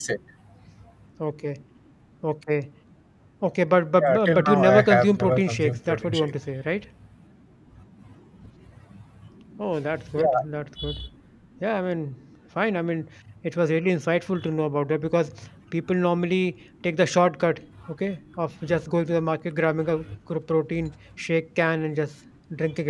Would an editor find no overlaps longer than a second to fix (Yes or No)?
No